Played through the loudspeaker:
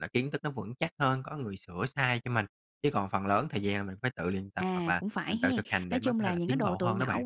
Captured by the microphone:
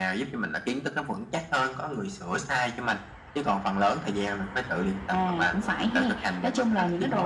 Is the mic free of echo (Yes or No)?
No